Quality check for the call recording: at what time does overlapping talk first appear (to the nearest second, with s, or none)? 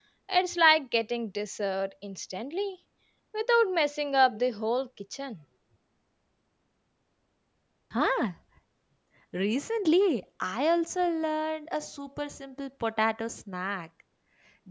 none